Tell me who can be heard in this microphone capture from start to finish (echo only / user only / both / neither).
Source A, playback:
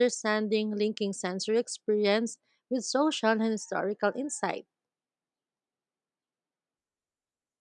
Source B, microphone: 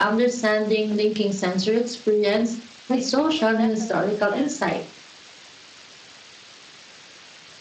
both